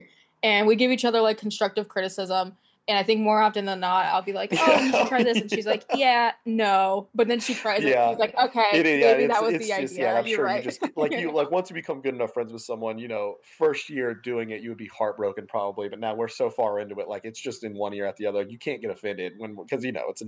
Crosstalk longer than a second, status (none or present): present